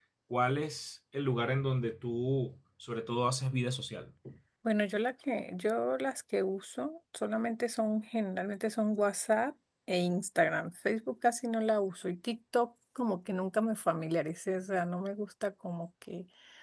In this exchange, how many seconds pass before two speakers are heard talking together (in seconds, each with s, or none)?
none